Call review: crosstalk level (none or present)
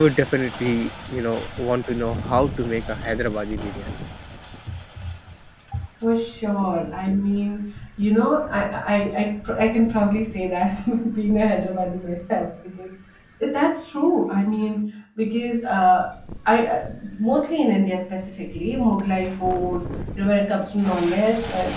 none